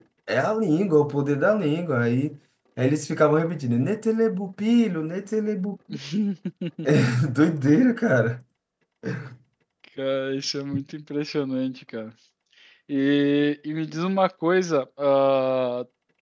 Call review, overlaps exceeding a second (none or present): none